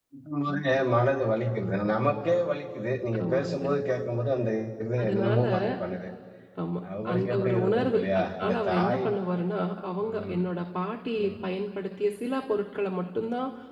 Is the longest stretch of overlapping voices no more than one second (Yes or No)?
No